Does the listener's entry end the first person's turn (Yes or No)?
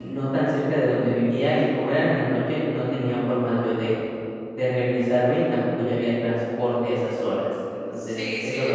Yes